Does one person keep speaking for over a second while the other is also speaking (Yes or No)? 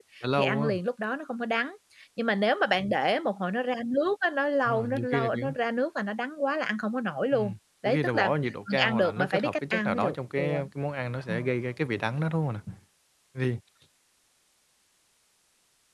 Yes